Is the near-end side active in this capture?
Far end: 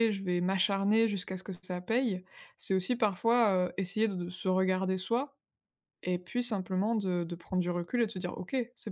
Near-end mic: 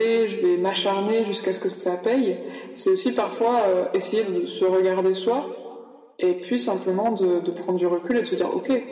No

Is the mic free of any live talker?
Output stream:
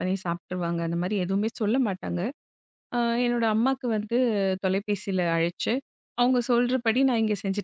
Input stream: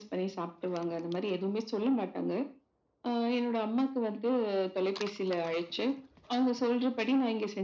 Yes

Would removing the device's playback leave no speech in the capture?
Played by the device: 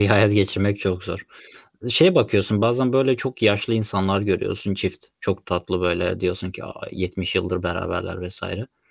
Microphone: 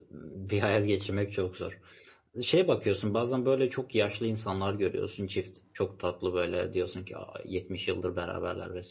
Yes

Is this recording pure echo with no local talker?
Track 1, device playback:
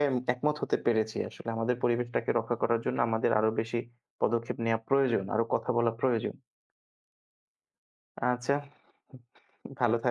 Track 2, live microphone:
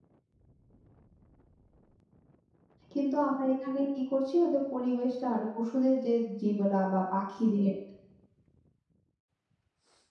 No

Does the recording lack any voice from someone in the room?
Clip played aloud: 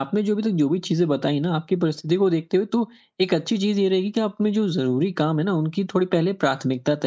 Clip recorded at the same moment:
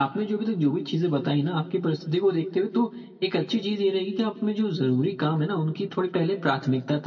Yes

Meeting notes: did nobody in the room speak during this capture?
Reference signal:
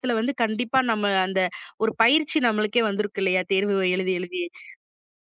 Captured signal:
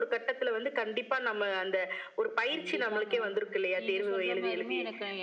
No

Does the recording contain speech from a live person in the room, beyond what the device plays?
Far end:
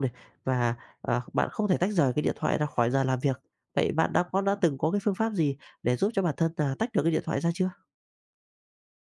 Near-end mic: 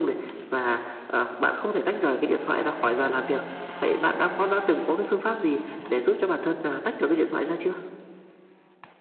No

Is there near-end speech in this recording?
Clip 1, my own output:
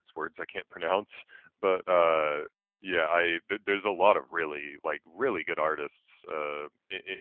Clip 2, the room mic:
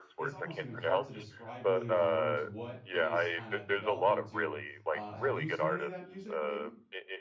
Yes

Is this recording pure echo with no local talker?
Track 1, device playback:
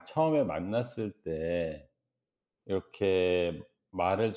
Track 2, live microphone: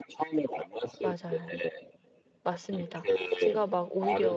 No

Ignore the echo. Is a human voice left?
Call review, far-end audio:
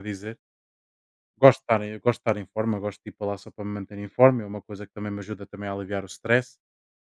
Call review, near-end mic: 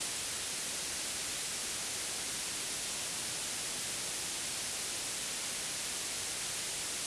No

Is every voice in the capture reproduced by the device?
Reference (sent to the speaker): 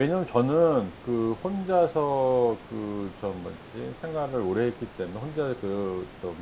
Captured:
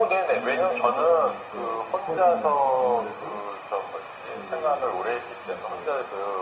No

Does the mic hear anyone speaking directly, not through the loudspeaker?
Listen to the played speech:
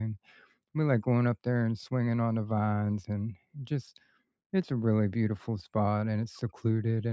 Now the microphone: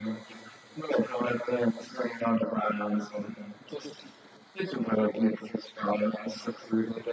No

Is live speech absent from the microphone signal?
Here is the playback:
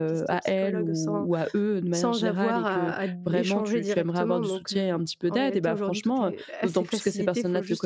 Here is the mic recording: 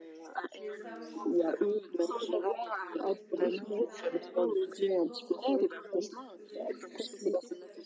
No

